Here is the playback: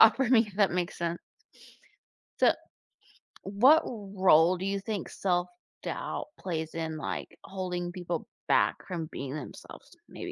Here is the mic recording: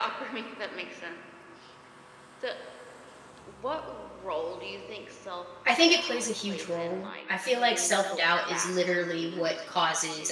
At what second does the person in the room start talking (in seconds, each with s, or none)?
5.6 s